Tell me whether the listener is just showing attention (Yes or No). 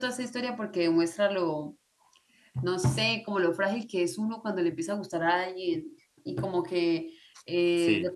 Yes